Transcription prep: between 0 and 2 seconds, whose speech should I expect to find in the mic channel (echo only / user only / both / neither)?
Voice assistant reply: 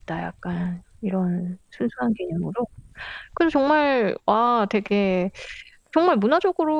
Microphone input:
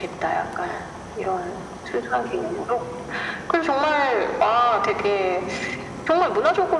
echo only